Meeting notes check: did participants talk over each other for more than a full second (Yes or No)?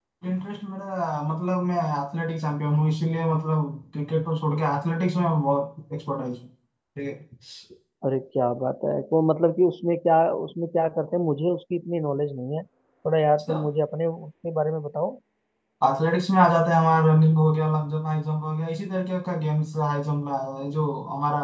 No